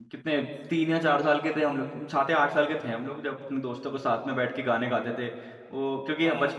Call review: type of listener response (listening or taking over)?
listening